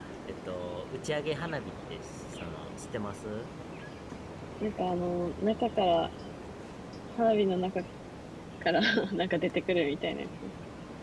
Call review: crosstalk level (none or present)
none